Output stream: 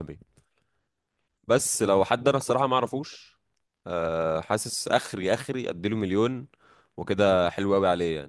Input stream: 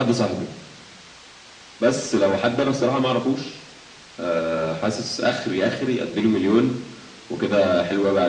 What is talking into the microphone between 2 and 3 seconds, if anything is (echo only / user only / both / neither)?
echo only